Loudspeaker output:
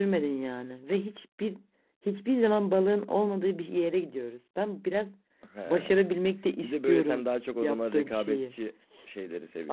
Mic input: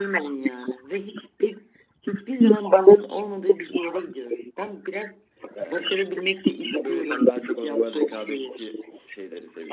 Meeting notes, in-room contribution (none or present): none